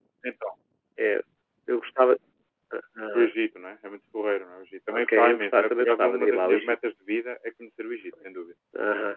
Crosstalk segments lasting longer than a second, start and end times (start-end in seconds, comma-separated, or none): 5.2-6.7